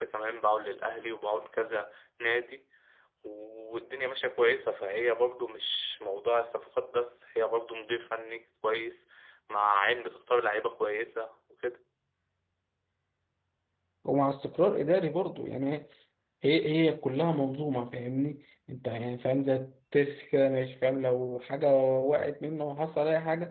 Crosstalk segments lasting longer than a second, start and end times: none

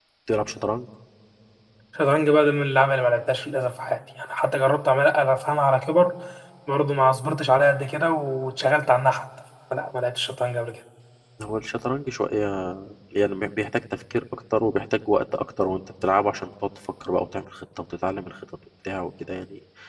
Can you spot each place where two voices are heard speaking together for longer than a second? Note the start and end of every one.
none

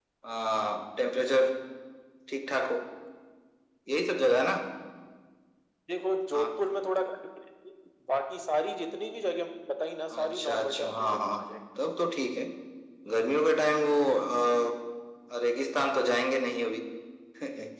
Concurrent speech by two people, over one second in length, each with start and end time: 10.1-11.4

